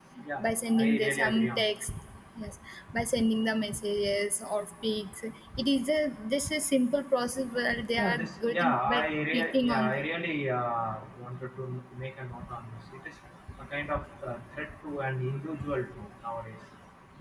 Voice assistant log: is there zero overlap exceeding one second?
No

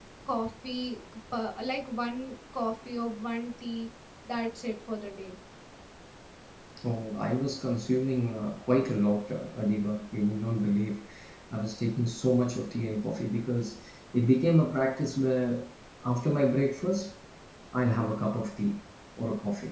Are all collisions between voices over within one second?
Yes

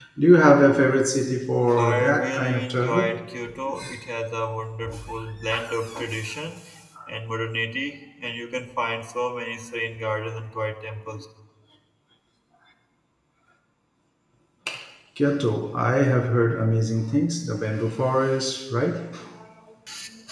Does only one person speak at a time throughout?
No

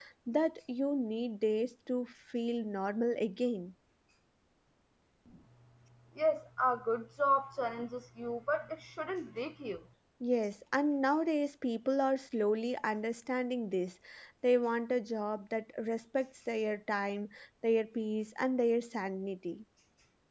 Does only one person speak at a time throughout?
Yes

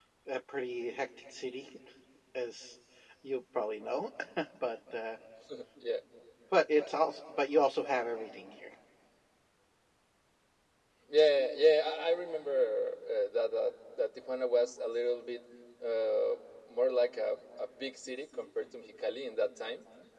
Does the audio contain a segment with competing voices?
No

